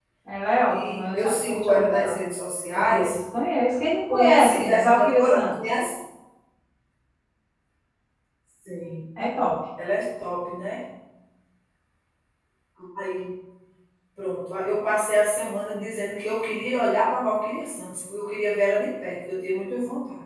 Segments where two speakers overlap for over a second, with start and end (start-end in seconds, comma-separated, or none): 0.7-2.2, 4.1-5.5